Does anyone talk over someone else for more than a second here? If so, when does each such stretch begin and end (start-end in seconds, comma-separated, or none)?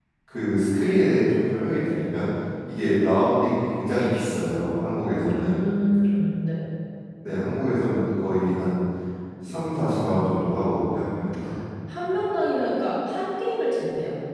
none